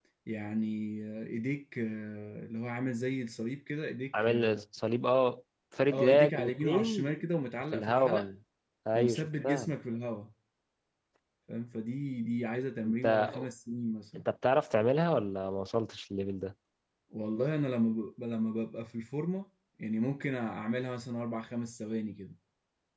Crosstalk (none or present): present